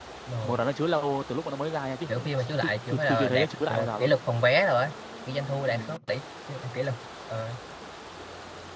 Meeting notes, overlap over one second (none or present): present